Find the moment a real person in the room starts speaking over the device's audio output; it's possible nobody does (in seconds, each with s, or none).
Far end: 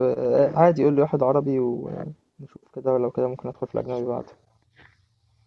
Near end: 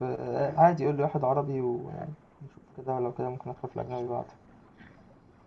none